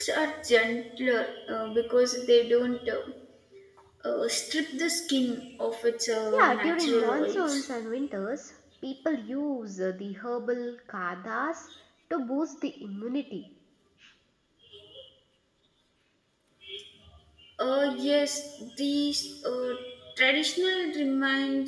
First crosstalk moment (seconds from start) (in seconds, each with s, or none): 6.3 s